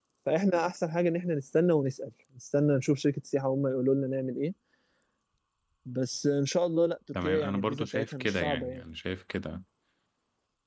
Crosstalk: present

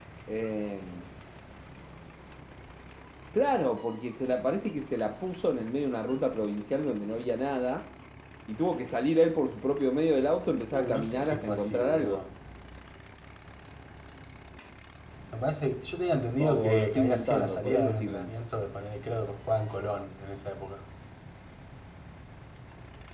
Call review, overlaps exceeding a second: present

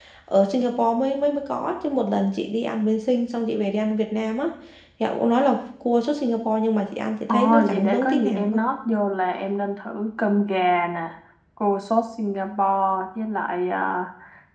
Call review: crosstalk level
present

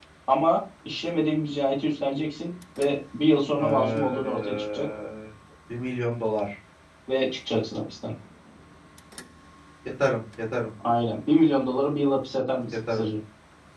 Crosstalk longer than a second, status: present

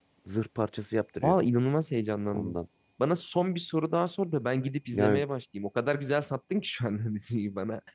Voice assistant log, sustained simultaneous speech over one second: none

